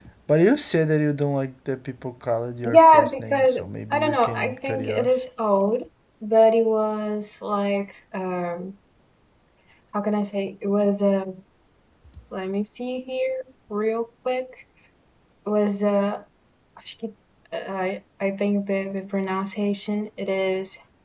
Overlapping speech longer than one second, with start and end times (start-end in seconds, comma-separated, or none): 2.6-5.1